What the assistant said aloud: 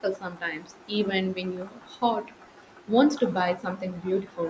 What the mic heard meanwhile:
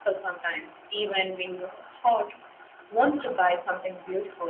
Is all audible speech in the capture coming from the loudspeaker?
Yes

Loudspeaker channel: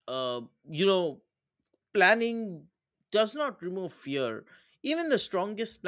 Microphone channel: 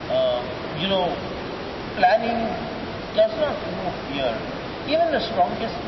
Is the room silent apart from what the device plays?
Yes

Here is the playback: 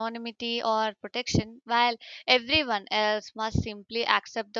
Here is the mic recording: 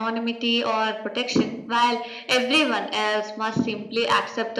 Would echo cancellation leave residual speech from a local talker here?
No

